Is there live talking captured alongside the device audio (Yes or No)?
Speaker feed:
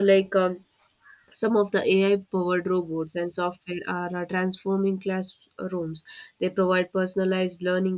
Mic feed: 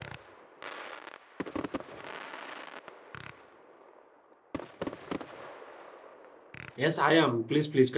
Yes